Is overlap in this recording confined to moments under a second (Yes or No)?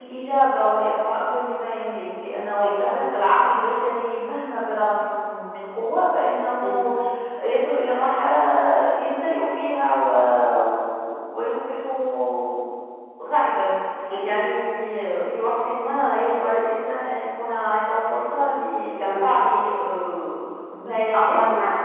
Yes